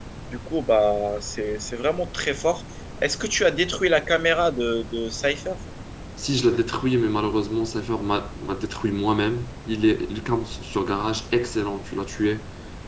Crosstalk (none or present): none